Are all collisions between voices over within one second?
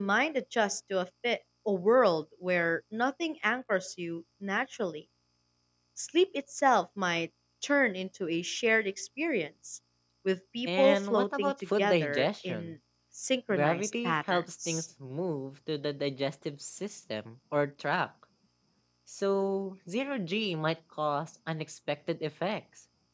No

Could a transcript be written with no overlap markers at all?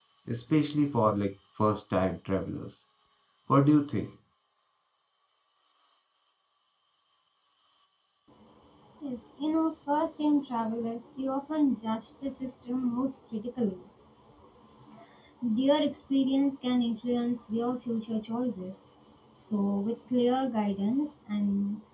Yes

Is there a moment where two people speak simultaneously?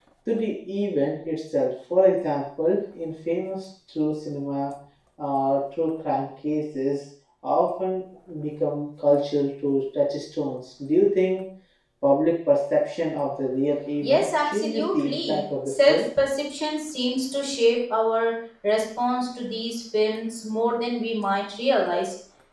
Yes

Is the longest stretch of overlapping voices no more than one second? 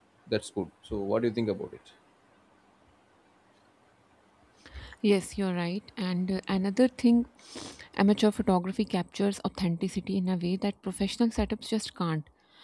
Yes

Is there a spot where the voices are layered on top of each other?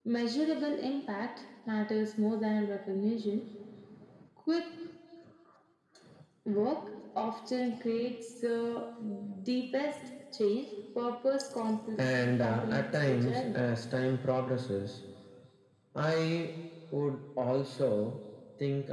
Yes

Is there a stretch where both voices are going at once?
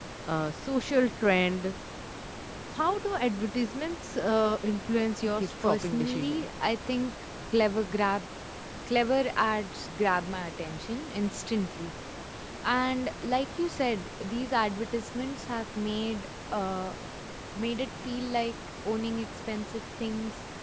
Yes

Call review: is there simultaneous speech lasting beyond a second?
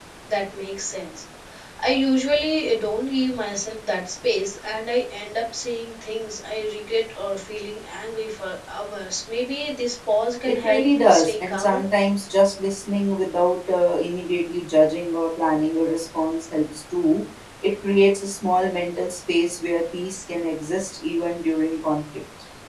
Yes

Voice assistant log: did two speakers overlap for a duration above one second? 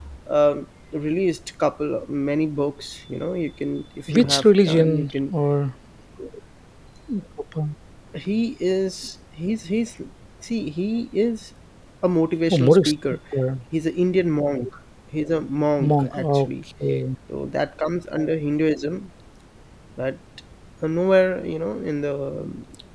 Yes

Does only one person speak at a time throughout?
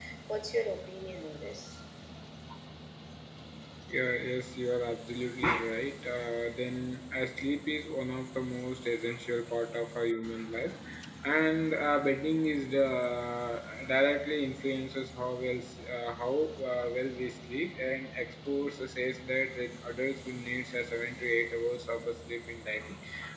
Yes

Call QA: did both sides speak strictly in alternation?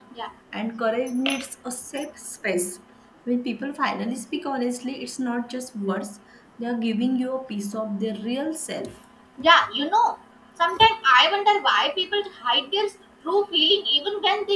Yes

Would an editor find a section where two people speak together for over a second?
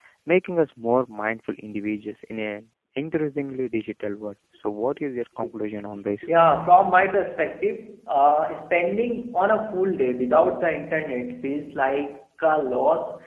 No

